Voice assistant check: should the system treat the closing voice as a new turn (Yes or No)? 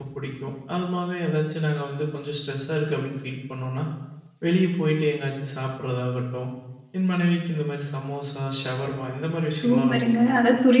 Yes